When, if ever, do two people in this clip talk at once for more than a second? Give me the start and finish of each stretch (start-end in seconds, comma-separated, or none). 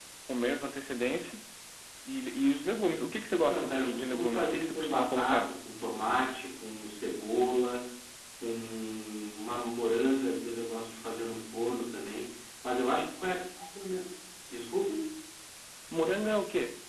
3.3-5.6